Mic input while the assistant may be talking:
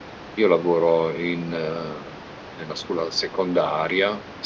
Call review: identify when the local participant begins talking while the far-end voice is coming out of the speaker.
0 s

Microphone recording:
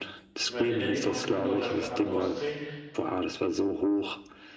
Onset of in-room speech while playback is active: 0 s

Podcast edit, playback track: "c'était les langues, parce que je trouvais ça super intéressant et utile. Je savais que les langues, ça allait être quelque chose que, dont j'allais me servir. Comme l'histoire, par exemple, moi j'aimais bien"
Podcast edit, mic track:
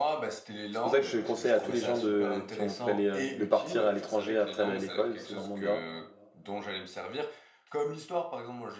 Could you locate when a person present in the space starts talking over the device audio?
1 s

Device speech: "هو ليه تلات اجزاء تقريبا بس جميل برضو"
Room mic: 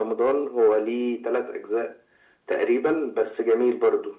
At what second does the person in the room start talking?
none

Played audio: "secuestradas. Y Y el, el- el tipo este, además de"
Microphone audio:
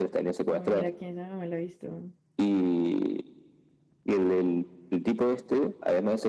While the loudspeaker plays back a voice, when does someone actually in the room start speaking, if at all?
0 s

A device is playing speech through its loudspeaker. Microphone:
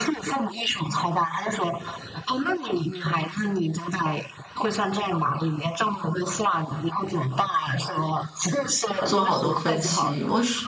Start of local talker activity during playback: 9 s

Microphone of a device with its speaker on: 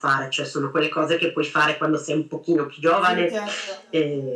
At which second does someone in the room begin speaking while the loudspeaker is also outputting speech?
3 s

